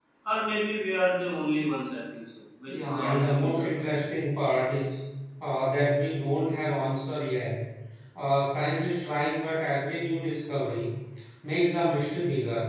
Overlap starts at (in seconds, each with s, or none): 2.7 s